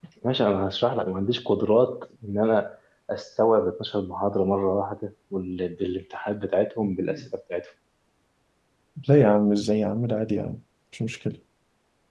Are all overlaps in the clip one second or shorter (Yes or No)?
Yes